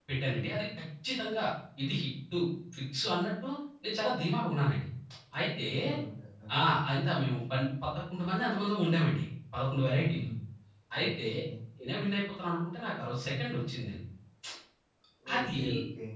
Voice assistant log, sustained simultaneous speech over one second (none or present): none